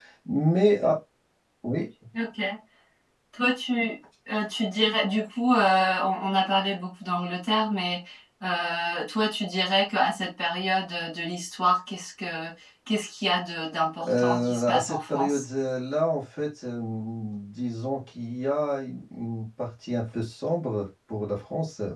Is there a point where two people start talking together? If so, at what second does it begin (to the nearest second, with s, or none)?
14 s